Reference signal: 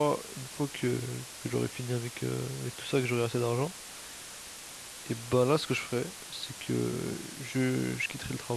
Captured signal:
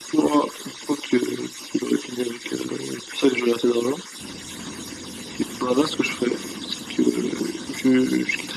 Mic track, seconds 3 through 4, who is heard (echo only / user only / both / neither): echo only